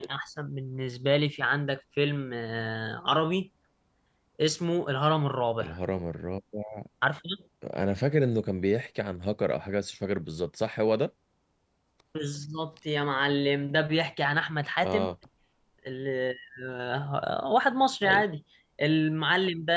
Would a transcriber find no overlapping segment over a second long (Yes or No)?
Yes